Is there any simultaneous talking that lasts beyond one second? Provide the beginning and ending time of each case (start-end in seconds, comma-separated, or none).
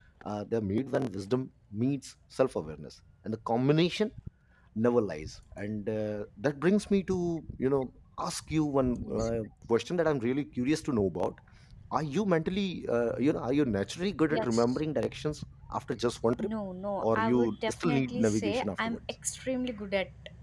17.0-19.0